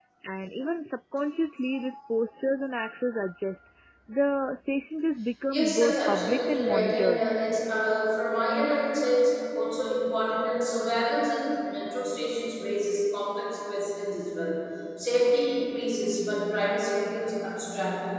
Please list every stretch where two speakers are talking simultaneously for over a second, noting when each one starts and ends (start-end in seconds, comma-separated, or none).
5.5-7.2